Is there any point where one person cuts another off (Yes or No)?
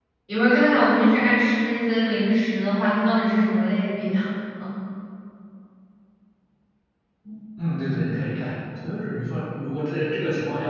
No